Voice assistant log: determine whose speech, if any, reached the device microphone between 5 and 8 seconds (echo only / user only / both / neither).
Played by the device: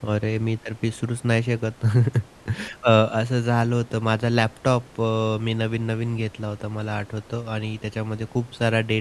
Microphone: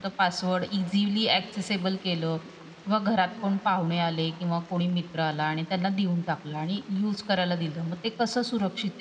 user only